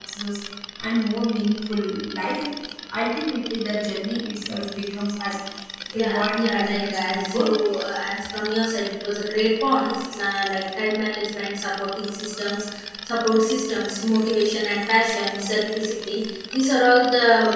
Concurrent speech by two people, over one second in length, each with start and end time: 5.9-7.5

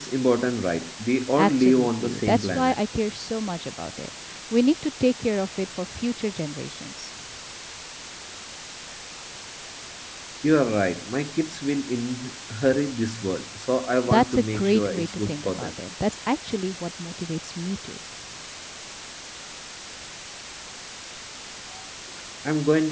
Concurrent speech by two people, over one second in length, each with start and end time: 1.4-2.8, 14.1-15.7

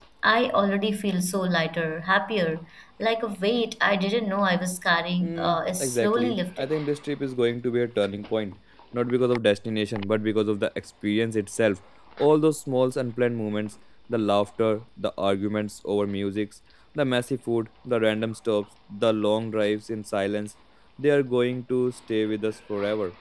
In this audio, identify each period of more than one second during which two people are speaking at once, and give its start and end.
5.2-6.7

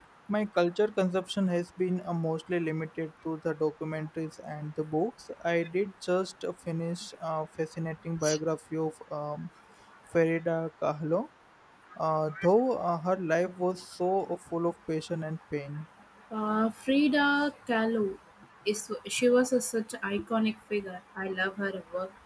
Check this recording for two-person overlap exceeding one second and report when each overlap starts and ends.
none

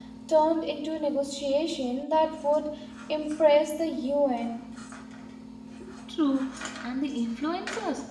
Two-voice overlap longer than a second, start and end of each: none

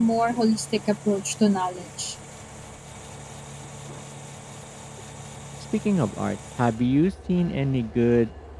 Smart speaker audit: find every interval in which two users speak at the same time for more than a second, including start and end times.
none

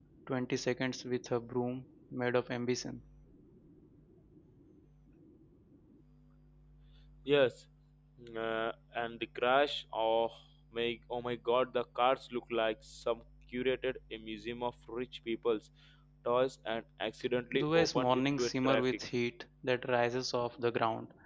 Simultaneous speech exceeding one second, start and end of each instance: 17.5-19.0

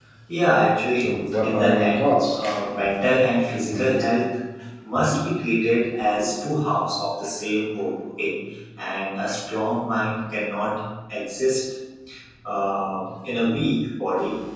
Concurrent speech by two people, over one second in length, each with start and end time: 0.9-2.4

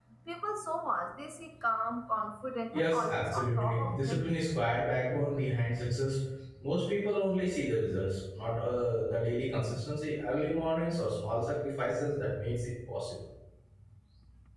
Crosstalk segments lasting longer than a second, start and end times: 2.7-4.2

